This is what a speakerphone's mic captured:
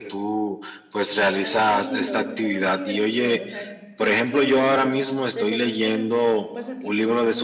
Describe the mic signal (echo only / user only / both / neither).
both